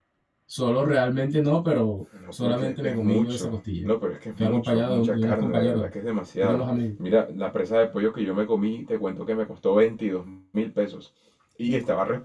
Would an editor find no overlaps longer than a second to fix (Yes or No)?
No